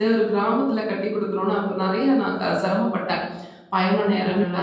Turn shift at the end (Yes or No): No